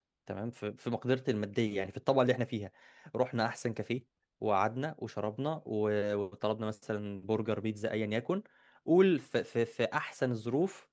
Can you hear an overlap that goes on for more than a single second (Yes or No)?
No